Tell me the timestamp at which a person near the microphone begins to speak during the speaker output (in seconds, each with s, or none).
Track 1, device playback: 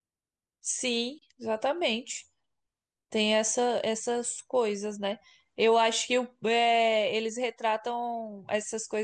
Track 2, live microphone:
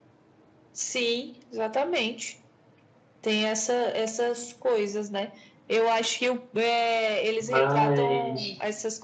7.4 s